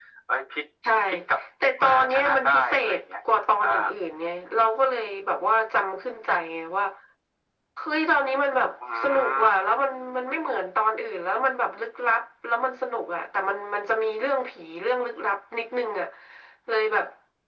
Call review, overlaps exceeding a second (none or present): present